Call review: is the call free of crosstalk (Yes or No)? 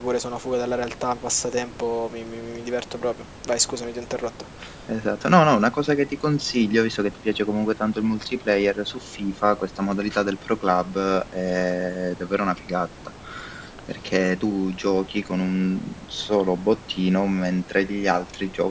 Yes